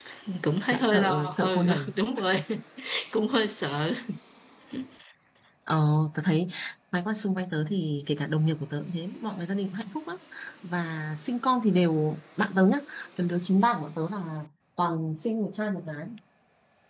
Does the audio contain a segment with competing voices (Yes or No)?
Yes